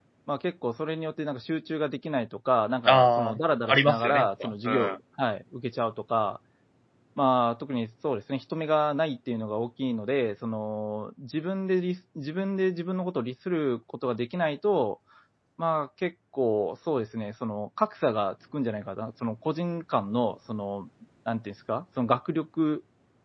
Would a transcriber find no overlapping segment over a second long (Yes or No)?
No